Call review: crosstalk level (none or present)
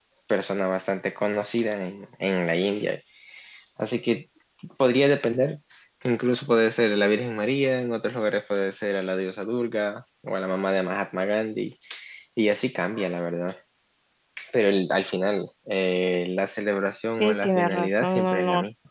present